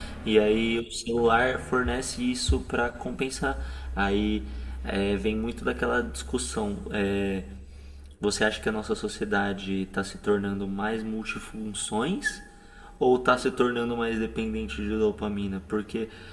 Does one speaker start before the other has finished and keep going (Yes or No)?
No